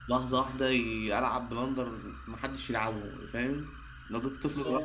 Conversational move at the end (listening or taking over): taking over